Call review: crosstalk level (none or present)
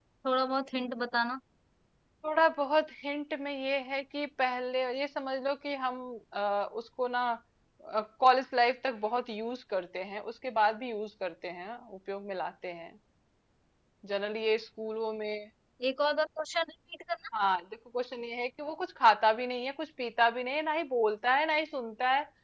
none